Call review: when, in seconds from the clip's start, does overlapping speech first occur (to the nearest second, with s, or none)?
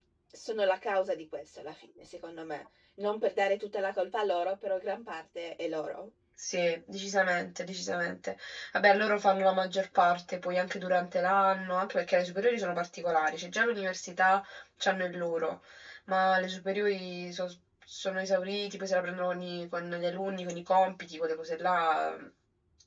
none